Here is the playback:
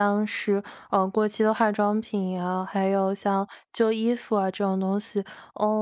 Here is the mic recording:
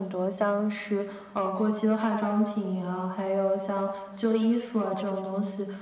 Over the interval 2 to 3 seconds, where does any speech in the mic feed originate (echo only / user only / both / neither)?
echo only